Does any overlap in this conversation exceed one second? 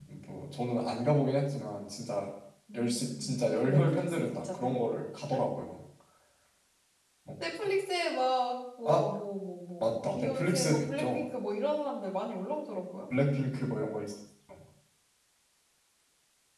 Yes, from 2.7 s

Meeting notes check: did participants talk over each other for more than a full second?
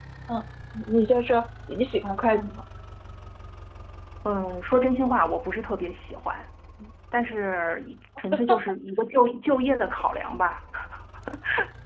No

